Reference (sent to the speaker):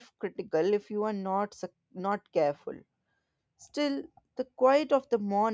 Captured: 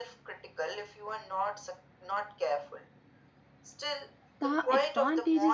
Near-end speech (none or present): present